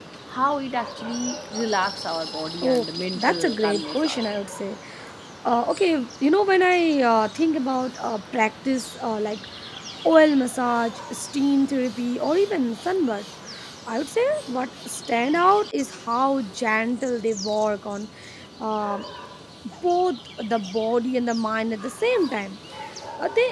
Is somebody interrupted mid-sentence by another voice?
Yes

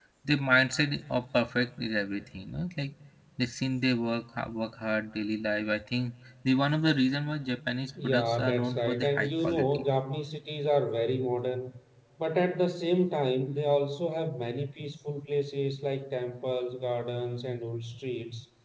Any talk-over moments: Yes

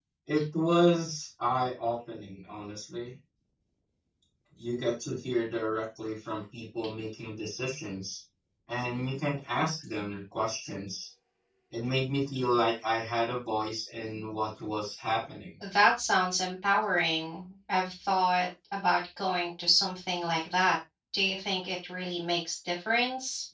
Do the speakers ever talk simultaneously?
No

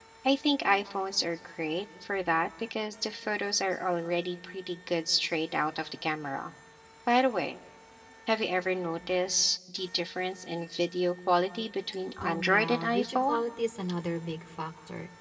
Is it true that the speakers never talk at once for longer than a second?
No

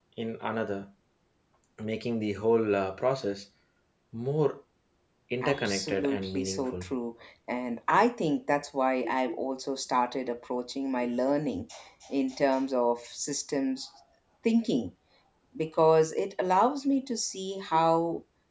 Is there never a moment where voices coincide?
No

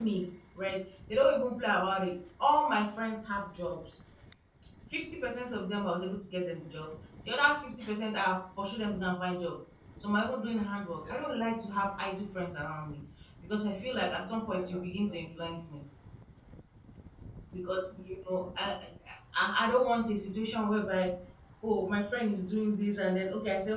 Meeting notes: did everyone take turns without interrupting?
No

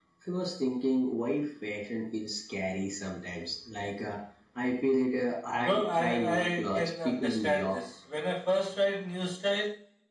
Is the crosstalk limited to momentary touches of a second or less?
No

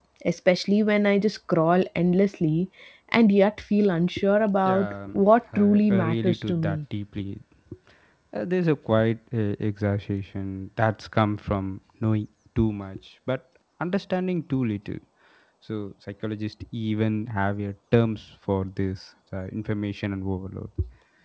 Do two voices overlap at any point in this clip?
Yes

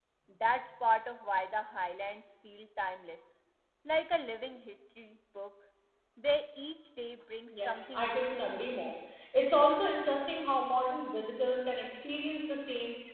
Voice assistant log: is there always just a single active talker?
No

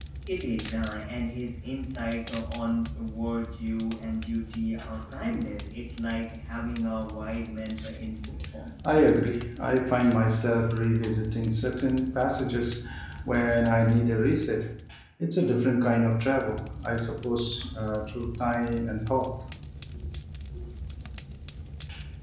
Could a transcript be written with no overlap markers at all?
Yes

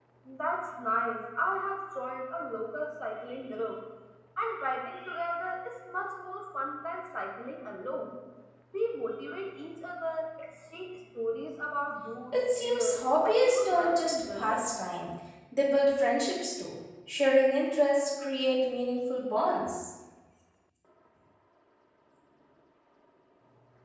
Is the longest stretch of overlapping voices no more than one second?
No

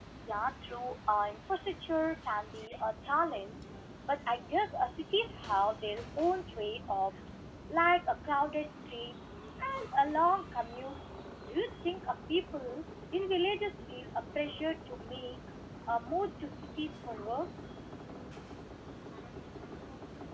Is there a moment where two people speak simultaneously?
No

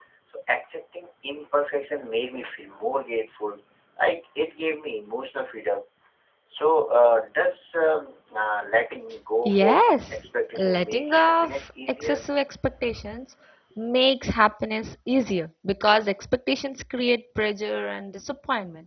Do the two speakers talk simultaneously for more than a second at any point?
Yes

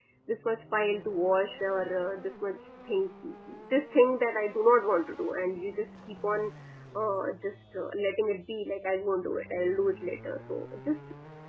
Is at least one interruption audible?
No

